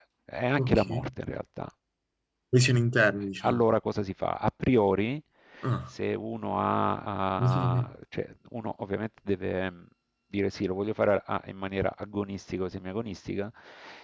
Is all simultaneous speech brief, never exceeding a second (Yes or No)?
Yes